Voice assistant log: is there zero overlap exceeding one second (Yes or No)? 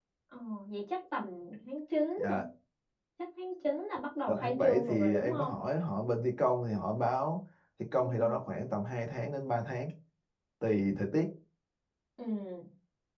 No